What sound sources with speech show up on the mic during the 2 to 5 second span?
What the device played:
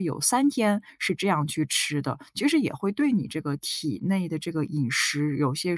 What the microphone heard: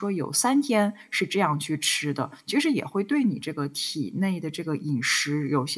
echo only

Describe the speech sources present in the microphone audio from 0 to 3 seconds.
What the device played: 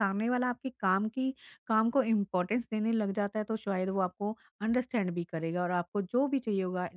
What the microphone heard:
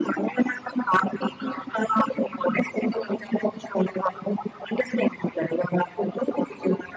echo only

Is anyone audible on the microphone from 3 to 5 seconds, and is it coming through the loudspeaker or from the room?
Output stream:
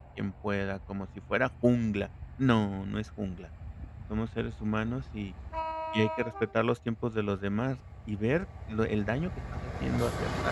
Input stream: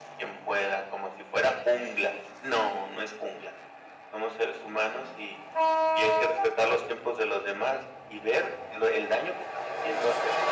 echo only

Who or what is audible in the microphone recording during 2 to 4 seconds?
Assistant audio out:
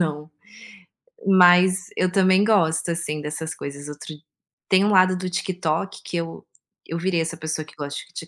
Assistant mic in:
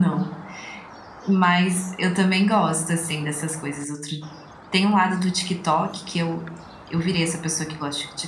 echo only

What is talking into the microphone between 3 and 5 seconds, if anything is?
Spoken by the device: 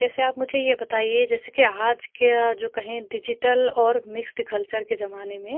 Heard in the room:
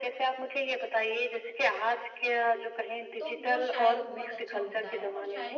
both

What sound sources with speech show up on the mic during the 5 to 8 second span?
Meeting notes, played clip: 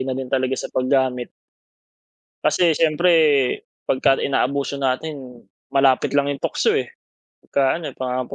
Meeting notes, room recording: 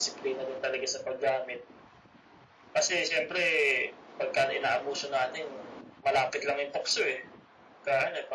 echo only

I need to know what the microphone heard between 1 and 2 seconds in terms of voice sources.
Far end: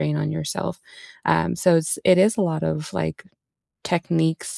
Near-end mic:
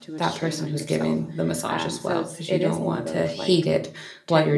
both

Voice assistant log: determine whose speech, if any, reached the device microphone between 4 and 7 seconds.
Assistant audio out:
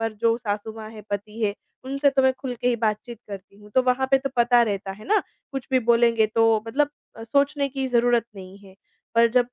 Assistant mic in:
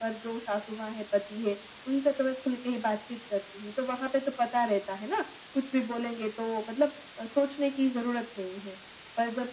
echo only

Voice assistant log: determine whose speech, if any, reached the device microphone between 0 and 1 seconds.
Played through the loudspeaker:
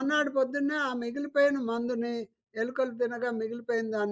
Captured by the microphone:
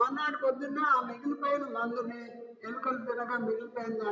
echo only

